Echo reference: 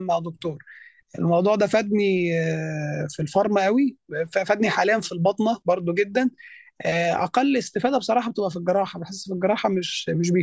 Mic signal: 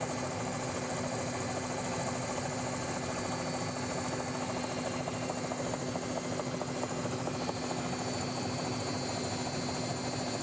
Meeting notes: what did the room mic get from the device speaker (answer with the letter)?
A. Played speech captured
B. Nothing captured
B